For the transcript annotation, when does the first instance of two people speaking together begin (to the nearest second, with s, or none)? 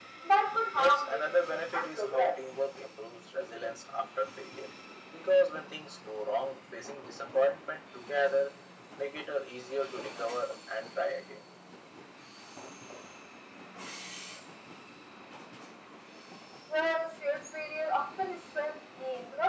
1 s